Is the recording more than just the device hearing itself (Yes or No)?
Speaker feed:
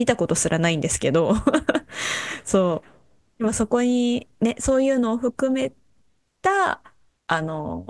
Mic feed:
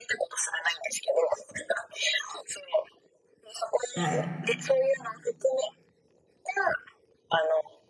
Yes